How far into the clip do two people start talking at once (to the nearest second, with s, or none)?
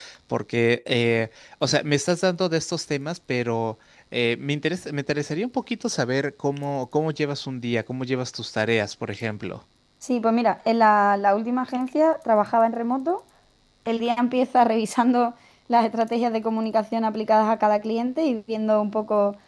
none